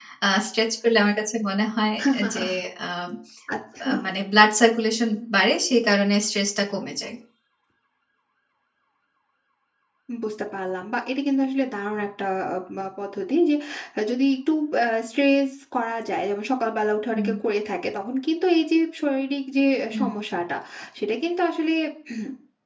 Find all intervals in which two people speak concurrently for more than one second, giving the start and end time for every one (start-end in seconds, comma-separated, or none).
none